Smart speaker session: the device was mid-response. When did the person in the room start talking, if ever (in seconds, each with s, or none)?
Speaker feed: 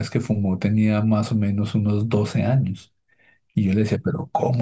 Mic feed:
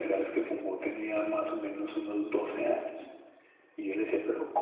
none